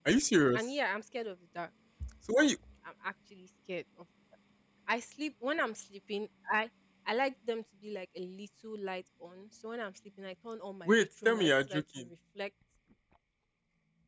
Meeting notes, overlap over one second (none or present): present